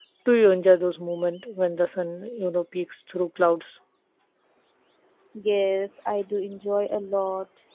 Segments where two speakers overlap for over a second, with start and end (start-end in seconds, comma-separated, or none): none